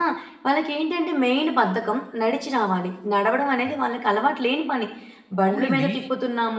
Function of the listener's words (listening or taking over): listening